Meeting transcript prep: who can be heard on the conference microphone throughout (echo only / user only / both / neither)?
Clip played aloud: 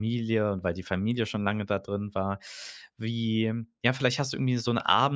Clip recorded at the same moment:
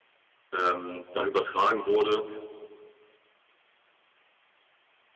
user only